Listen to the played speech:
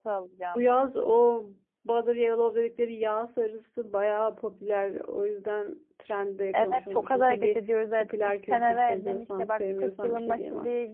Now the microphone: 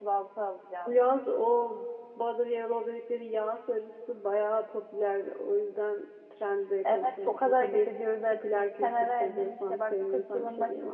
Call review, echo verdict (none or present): present